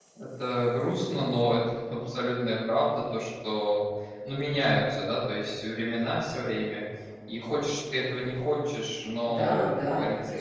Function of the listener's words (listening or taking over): taking over